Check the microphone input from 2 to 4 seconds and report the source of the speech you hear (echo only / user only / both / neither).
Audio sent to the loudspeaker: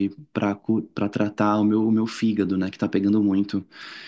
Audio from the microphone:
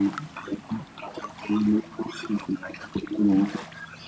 echo only